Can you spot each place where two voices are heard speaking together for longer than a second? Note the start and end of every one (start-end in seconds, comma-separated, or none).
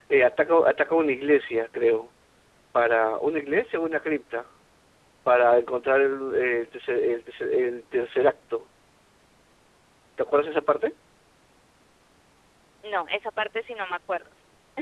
none